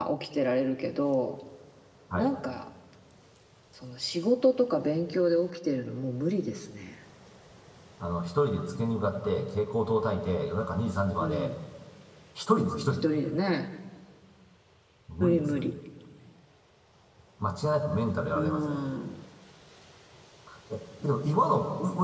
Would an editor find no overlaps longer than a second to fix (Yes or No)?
Yes